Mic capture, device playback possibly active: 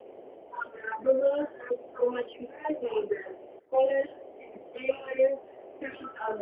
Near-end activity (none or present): none